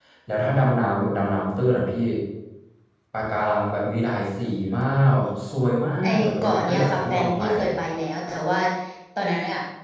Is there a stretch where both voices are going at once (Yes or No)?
Yes